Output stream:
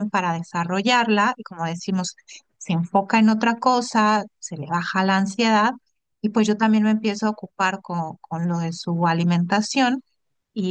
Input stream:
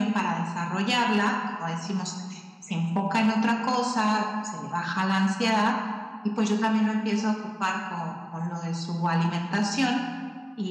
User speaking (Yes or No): No